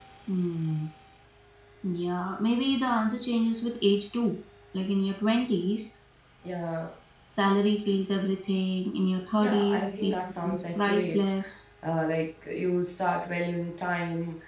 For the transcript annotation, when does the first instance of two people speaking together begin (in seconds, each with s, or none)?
9.4 s